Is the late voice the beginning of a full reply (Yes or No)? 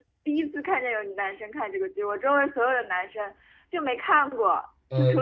No